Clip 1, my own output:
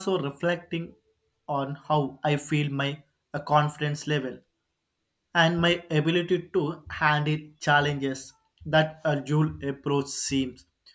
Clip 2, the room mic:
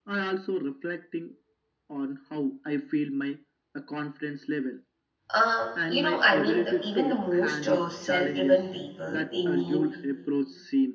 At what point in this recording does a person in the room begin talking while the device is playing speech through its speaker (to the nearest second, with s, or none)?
5 s